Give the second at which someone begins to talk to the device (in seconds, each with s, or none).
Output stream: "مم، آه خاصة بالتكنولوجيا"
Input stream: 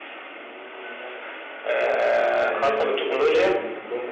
2.4 s